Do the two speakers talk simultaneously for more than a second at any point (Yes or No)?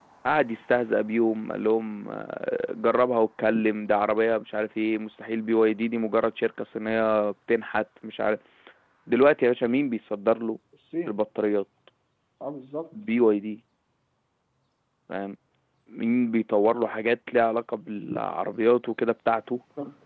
No